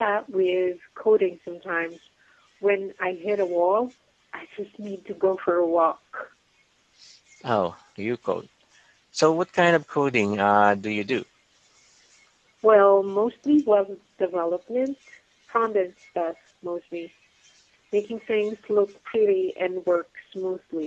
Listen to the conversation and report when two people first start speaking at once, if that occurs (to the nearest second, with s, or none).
none